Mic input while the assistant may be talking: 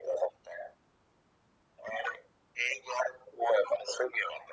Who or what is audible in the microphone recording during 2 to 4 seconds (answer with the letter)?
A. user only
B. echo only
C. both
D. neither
B